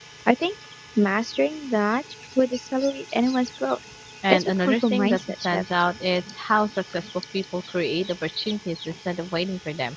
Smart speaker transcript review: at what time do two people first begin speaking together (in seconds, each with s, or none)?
4.3 s